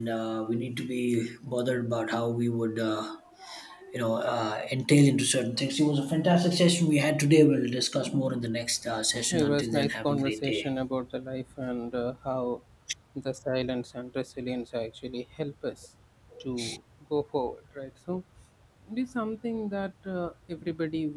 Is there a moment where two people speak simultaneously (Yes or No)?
Yes